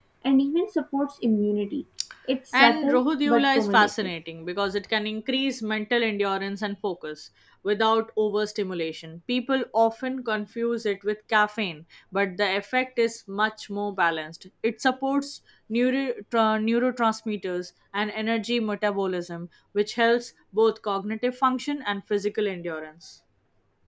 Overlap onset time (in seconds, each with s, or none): 2.6 s